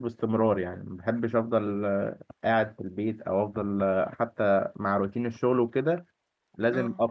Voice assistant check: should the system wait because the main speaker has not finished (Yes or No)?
Yes